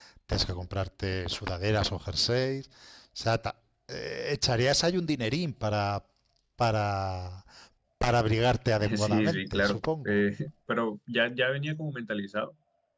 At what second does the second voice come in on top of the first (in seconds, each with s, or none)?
9.0 s